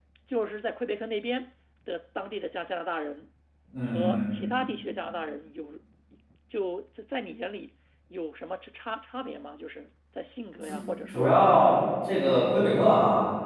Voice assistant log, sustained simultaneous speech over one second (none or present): none